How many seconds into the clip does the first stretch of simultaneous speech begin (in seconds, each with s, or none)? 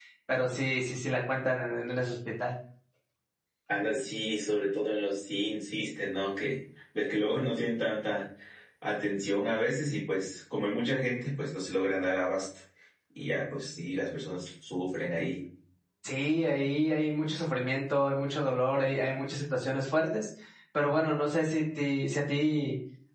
none